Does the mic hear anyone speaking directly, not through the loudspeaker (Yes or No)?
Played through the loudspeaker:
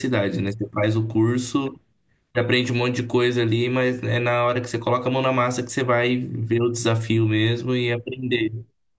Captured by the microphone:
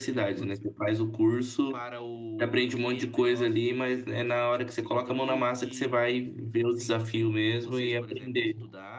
Yes